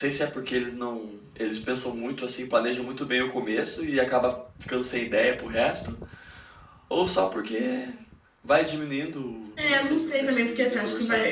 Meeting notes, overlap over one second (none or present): present